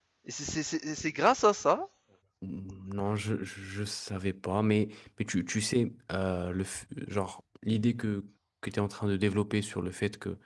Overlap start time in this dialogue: none

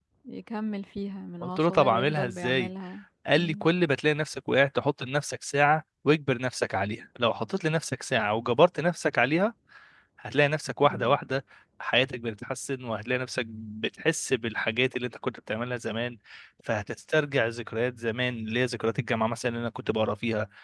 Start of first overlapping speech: 1.4 s

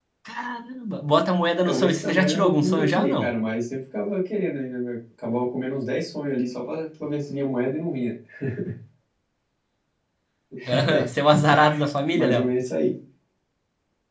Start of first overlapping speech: 1.7 s

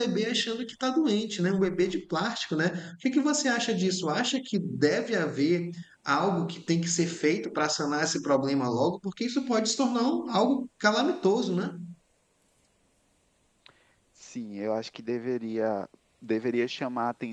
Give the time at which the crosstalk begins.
none

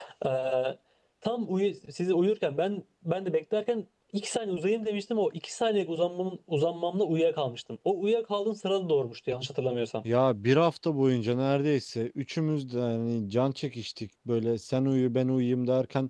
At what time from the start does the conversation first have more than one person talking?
none

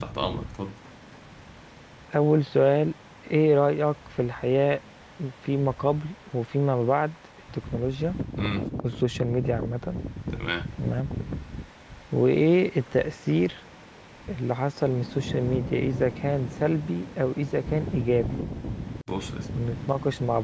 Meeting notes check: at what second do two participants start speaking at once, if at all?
none

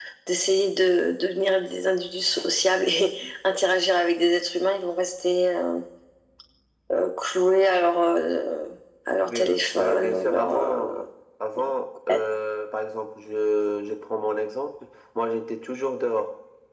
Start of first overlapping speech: 9.3 s

